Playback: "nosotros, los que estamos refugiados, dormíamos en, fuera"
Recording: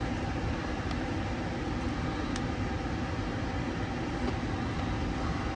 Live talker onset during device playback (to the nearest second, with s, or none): none